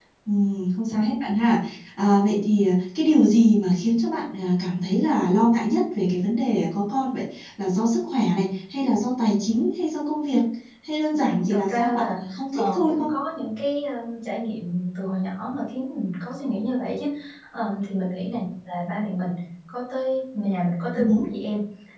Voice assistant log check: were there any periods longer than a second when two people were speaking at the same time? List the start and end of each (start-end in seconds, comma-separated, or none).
11.2-13.1